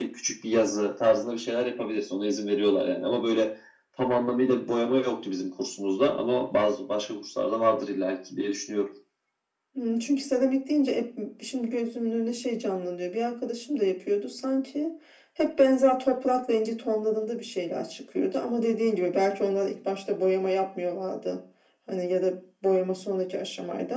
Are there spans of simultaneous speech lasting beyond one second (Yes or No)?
No